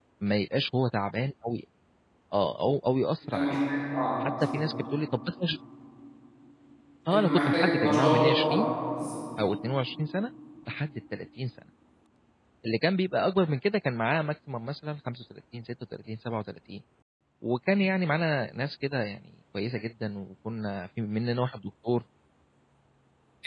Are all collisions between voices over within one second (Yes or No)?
No